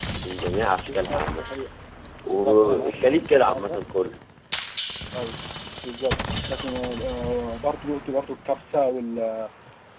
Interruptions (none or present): present